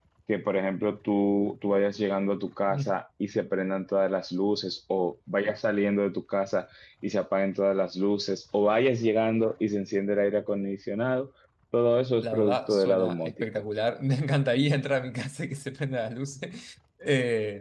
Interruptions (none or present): present